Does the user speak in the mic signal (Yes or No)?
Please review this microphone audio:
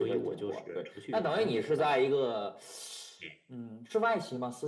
No